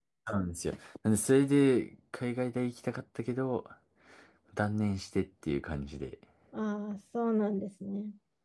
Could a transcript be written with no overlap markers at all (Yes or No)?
Yes